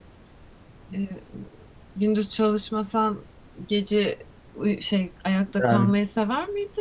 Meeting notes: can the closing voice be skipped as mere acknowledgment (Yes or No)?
Yes